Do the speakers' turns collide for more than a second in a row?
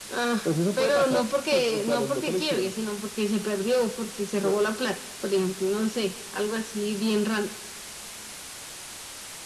Yes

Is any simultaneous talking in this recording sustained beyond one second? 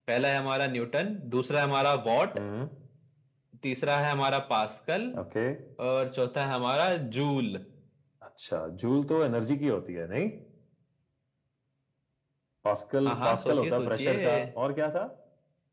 Yes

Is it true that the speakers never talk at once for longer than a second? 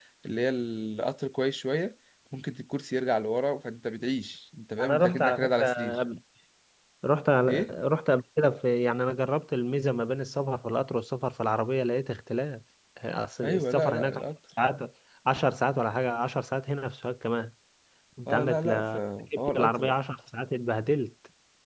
No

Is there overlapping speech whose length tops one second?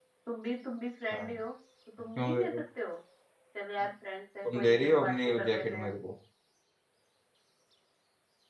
Yes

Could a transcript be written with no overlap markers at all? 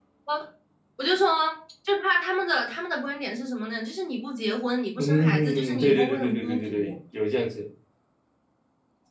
No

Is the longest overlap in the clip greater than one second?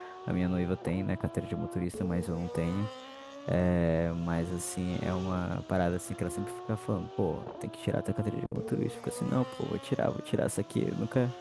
No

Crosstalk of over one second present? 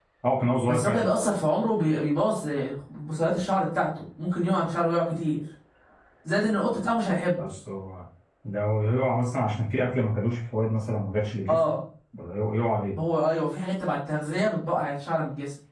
No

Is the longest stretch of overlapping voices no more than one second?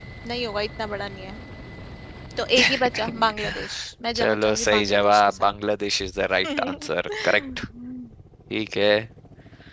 No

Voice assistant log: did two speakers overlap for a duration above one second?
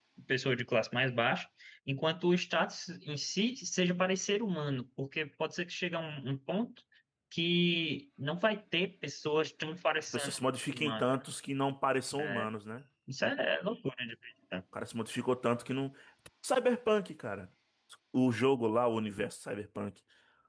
No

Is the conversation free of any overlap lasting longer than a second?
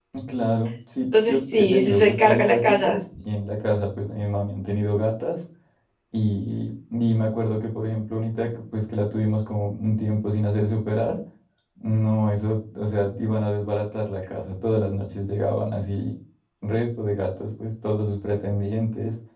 No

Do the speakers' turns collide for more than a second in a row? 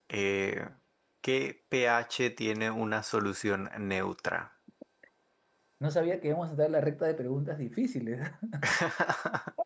No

